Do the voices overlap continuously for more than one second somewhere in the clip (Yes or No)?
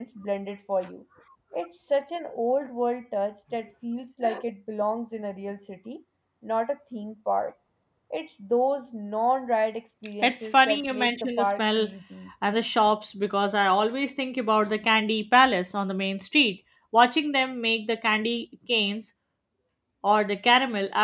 Yes